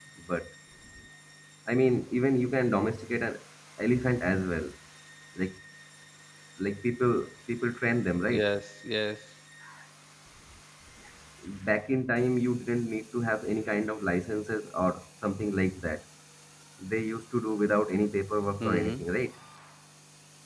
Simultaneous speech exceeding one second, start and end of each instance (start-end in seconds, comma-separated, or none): none